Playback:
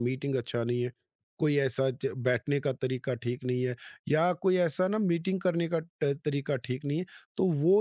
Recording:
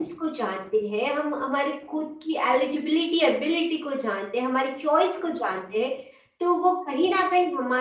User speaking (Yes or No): Yes